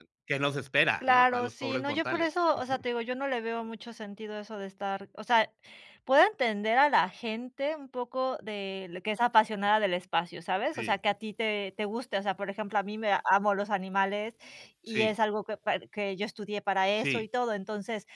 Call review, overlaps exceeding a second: present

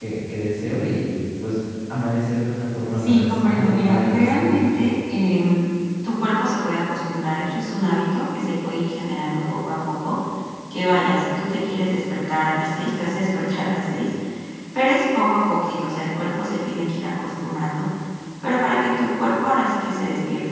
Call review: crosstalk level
present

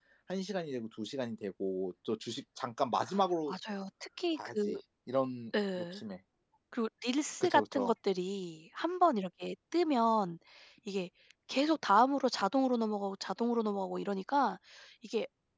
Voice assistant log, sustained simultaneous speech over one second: none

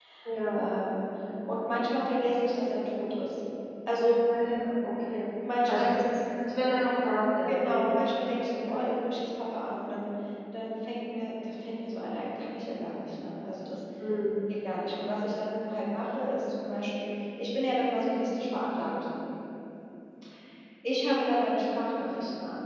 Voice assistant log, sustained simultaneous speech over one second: none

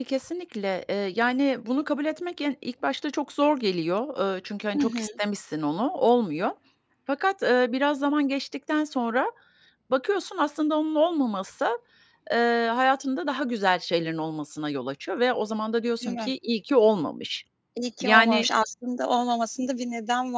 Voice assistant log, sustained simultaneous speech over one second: none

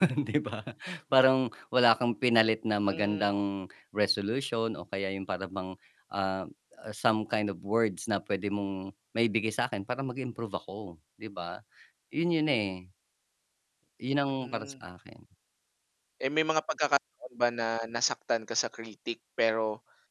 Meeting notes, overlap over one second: none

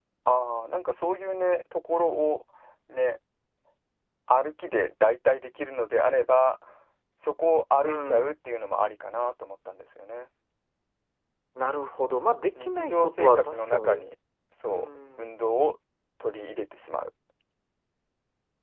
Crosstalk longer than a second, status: present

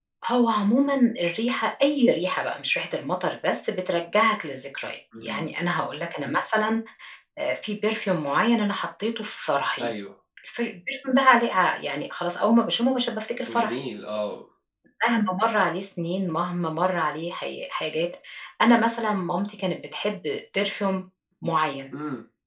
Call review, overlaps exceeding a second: none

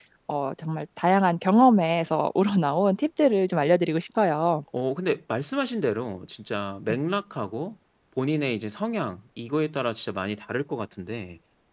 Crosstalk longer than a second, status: none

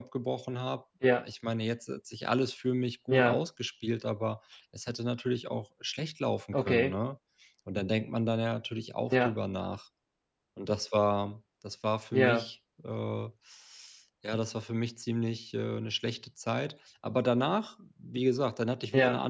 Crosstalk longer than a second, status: none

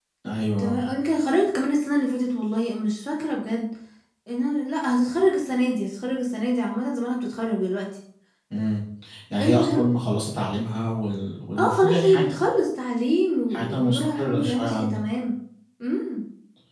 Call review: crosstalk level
present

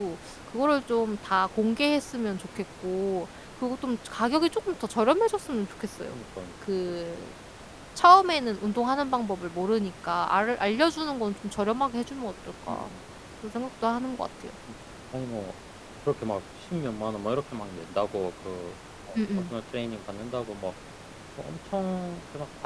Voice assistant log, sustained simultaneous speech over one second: none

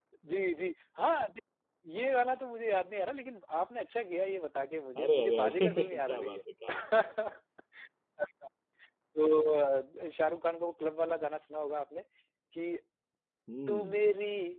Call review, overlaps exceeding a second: present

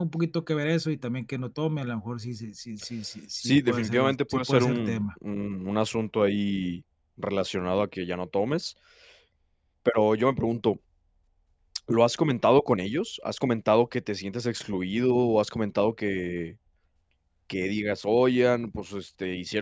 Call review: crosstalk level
present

